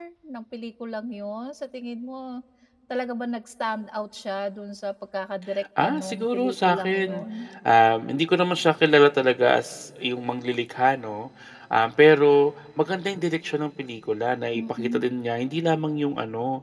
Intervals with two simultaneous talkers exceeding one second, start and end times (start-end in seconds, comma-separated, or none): 5.8-7.2